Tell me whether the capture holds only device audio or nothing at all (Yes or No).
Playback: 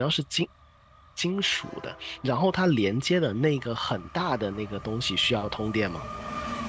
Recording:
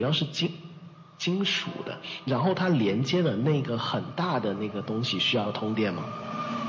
Yes